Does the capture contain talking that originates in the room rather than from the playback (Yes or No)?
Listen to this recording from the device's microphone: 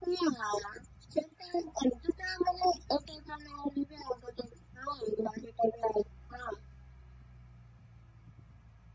No